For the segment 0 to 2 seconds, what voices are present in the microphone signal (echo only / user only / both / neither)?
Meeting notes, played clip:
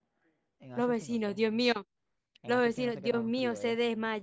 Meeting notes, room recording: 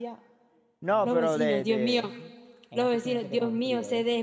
both